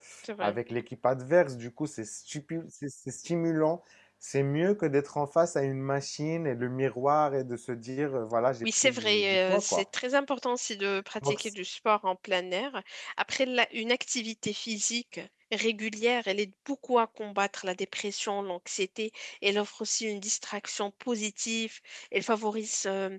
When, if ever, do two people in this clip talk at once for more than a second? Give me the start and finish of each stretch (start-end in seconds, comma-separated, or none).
8.6-9.8